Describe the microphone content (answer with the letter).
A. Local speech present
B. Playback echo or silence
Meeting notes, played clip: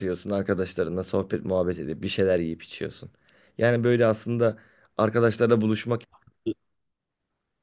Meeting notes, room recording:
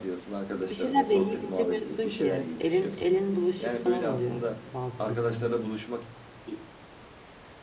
A